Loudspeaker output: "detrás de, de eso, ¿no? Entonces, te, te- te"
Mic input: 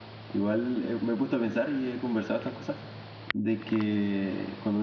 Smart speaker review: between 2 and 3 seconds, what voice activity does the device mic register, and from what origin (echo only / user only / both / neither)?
user only